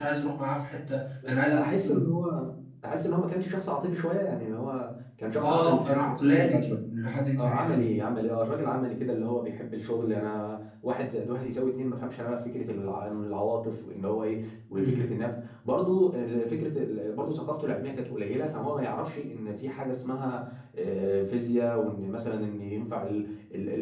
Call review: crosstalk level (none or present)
present